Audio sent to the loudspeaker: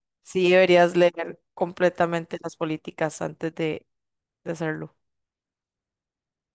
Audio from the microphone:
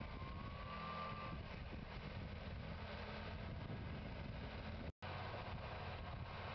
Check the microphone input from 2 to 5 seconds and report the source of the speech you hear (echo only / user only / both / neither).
neither